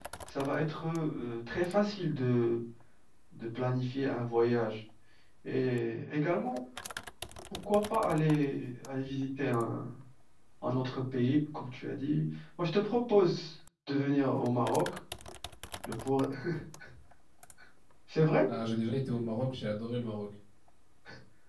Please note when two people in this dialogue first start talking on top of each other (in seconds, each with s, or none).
none